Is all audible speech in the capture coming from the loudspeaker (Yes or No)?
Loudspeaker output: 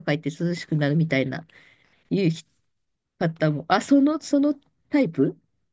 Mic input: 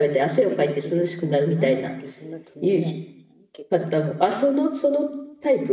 No